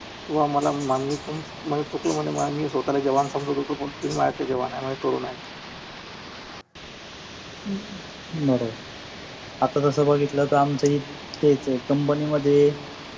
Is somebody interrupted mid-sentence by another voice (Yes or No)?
No